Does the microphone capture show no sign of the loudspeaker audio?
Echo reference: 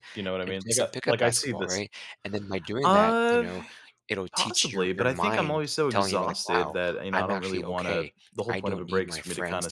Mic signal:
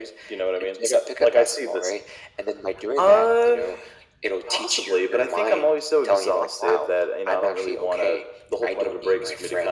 No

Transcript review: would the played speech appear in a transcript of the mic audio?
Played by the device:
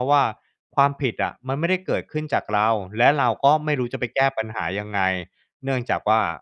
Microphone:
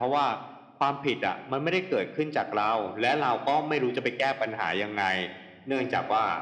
Yes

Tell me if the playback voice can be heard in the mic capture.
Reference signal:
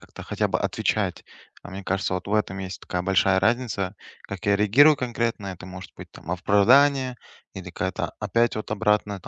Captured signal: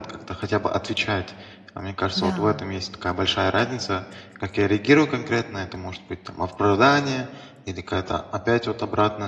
Yes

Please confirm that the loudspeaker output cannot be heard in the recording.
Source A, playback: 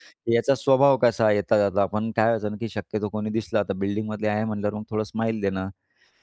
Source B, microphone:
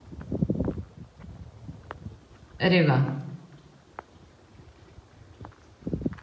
Yes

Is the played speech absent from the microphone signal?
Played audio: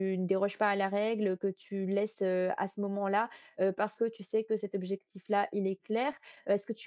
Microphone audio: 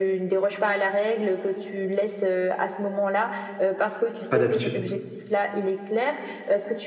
No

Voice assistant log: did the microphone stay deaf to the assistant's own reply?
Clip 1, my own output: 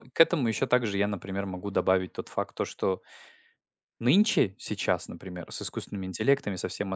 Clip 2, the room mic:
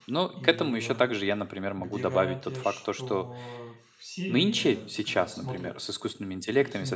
No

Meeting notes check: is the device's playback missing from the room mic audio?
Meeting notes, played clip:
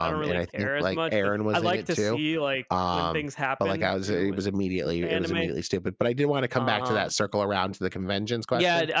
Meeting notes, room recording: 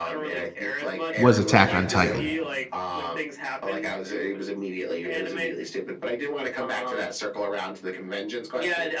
No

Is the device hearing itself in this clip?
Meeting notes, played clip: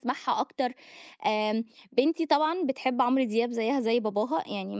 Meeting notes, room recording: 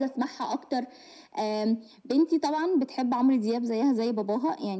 Yes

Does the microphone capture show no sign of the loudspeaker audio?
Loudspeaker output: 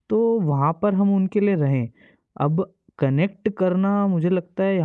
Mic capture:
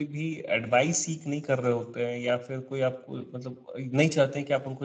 Yes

